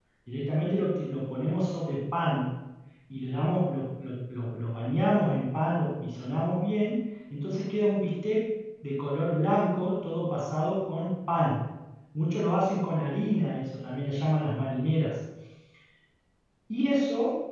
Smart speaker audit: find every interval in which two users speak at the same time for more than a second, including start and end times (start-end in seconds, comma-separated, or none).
none